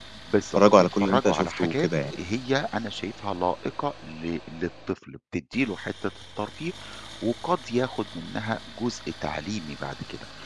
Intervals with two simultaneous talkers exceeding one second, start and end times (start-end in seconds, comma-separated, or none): 0.6-2.1